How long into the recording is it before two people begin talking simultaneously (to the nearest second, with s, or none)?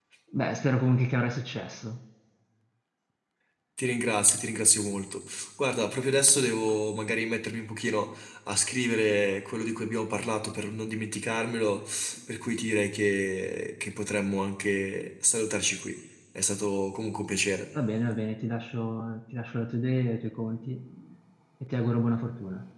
none